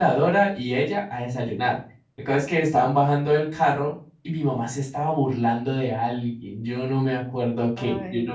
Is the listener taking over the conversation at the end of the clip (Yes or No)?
No